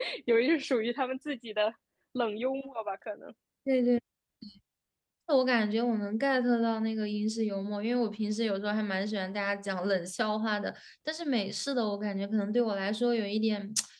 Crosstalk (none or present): none